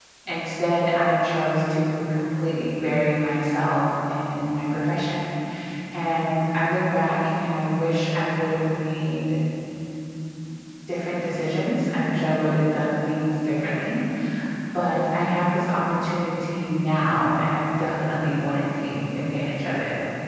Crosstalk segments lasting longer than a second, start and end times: none

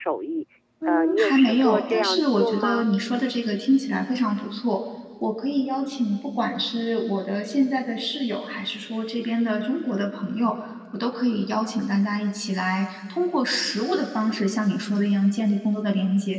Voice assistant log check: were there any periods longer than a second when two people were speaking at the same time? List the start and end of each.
0.9-2.9

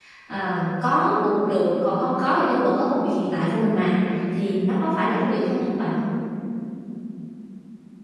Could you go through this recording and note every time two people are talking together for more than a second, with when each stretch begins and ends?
none

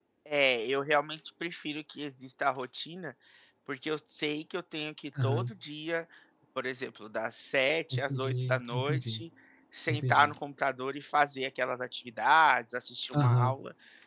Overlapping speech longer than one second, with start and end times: 7.9-9.2

